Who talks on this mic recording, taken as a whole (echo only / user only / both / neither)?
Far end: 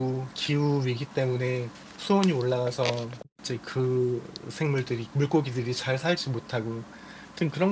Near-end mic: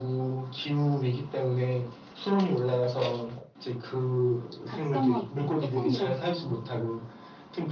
both